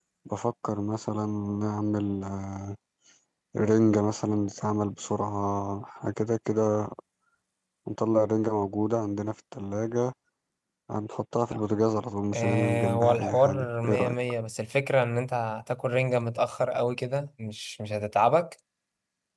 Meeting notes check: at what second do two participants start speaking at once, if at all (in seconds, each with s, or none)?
12.3 s